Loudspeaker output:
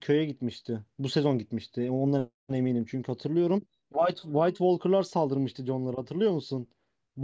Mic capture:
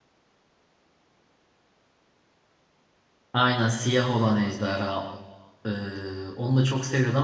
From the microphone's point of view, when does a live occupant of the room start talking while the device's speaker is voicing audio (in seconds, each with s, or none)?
3.3 s